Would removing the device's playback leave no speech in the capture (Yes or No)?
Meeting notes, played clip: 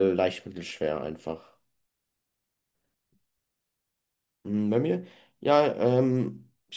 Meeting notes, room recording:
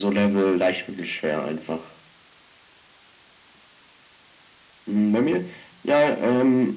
Yes